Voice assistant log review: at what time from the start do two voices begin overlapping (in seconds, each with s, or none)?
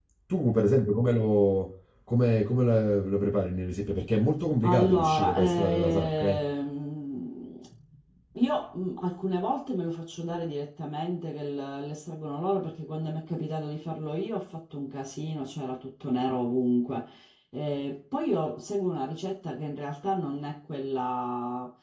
4.6 s